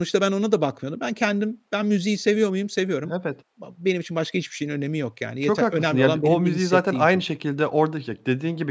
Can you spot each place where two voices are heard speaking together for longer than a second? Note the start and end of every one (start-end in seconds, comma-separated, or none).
5.4-7.2